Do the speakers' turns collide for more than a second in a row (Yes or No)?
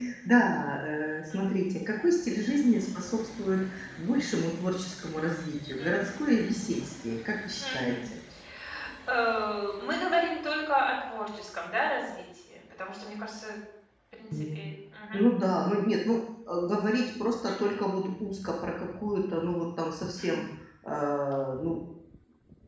No